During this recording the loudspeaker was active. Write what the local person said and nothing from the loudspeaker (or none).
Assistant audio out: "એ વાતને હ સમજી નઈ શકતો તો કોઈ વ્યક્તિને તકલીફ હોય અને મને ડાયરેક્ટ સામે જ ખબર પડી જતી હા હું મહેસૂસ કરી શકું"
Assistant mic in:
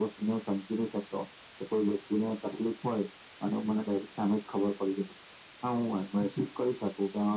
none